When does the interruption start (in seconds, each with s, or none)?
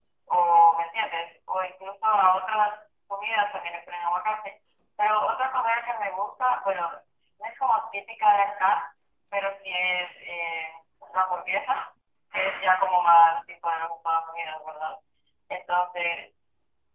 none